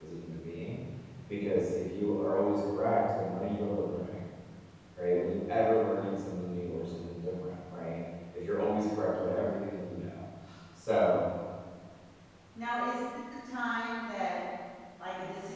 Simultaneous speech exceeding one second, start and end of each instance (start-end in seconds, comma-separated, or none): none